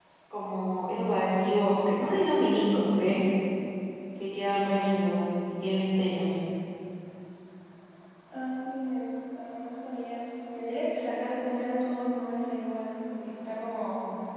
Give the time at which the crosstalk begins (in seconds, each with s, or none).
none